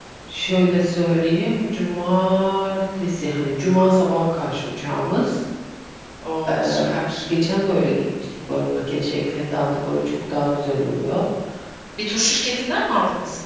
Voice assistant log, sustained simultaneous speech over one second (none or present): none